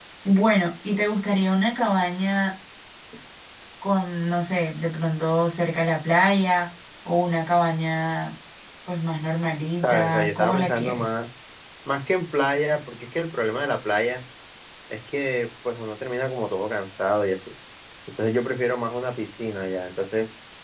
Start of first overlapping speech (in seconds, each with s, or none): 9.8 s